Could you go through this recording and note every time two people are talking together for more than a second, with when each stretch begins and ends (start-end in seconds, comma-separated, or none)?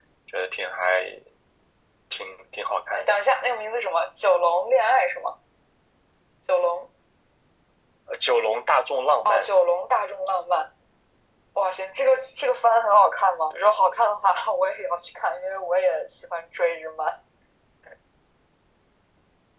none